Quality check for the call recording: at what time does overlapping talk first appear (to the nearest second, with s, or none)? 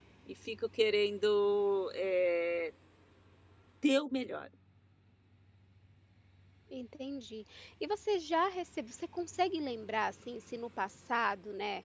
none